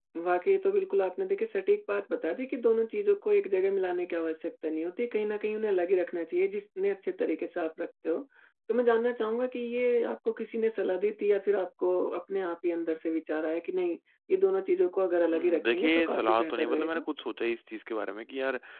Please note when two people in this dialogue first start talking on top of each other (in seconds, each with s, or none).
15.3 s